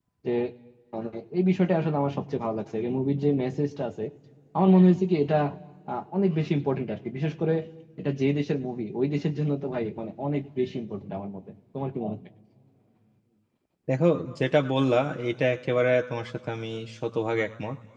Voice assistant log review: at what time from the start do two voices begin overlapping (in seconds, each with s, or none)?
none